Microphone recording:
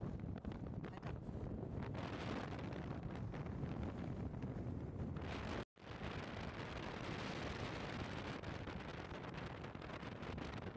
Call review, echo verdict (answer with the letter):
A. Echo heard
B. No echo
B